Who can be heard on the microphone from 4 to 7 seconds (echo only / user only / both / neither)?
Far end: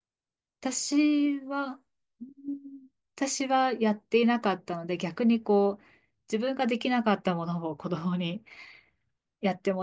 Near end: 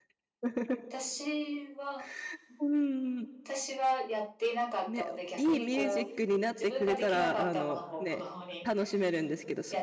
both